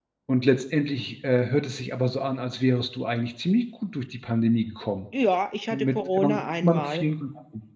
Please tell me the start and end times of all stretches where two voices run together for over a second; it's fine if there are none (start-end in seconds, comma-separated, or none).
5.7-7.0